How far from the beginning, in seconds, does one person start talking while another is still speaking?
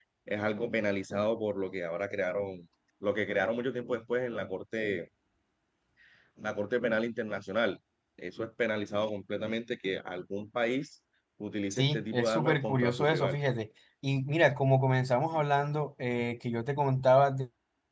12 s

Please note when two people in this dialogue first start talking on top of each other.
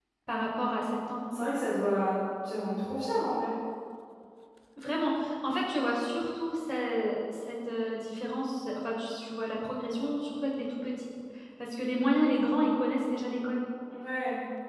none

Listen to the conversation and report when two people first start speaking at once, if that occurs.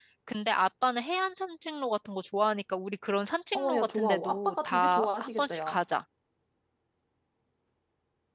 4 s

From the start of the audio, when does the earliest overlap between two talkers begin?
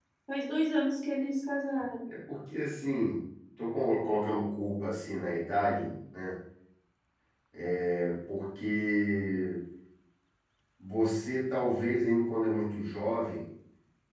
none

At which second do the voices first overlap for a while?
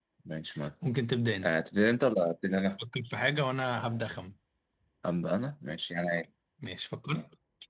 none

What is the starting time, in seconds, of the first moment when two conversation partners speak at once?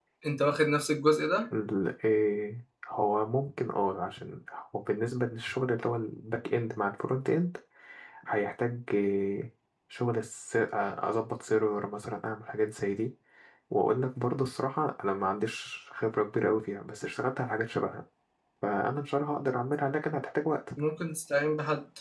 none

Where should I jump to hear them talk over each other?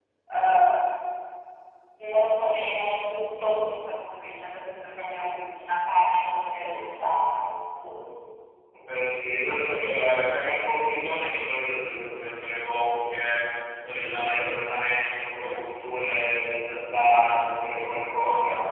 none

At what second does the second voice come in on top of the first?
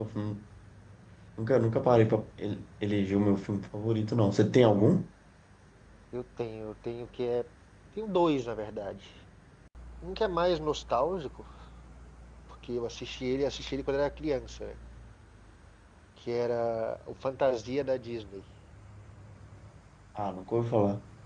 none

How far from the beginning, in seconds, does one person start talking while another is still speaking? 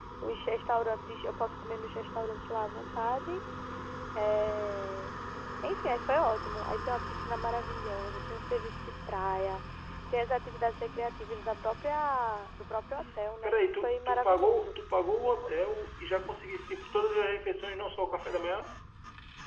13 s

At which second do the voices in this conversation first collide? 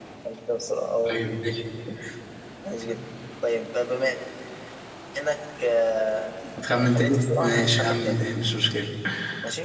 7 s

